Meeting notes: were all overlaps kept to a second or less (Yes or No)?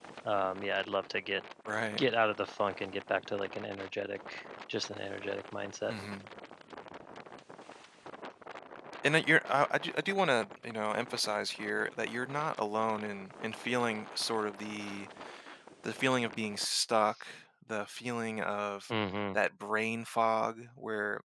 Yes